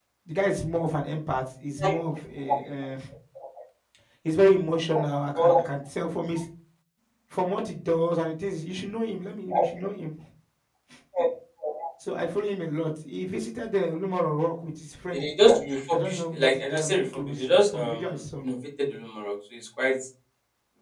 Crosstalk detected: Yes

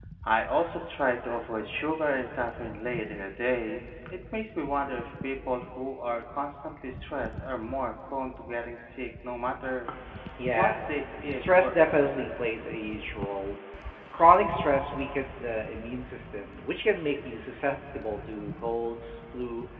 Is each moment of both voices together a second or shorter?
No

